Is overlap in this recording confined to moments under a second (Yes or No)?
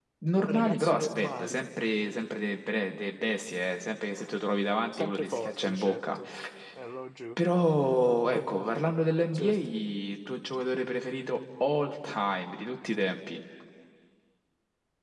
No